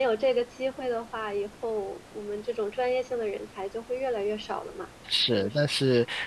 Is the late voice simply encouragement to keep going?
No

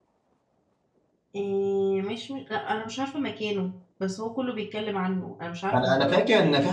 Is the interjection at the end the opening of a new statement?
Yes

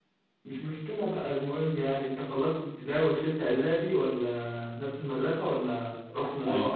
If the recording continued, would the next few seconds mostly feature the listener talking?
Yes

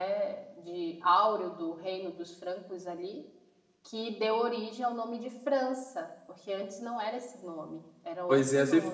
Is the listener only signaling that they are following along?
No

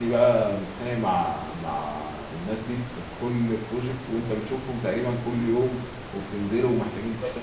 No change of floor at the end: Yes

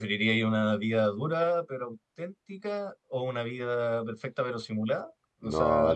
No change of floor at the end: No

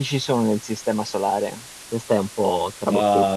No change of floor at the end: No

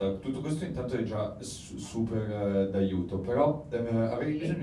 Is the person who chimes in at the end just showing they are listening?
Yes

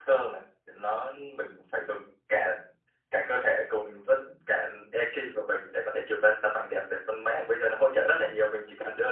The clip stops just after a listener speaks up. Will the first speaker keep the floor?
Yes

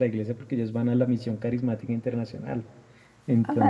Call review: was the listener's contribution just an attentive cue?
Yes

